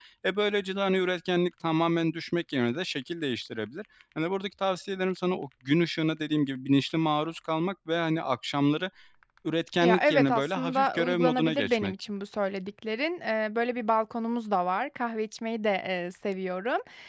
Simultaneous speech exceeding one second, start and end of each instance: 9.8-11.9

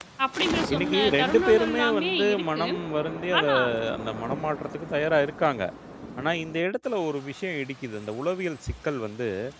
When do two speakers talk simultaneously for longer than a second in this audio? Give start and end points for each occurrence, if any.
0.7-2.6

